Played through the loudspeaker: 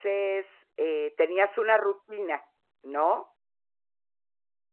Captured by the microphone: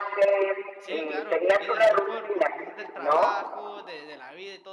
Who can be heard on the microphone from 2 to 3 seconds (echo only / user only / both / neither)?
both